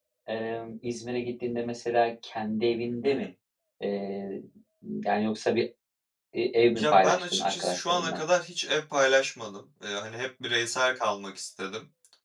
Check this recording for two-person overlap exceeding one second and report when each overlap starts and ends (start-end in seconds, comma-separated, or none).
6.8-8.2